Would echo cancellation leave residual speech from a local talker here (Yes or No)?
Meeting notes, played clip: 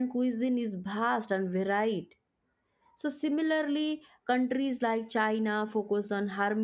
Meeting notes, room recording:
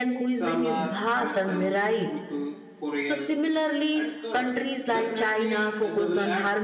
Yes